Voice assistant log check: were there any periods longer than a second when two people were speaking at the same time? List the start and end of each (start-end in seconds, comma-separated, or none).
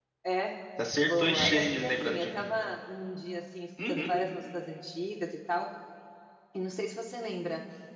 1.0-2.5